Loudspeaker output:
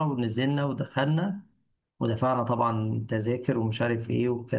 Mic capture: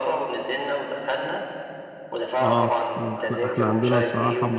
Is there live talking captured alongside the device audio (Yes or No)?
Yes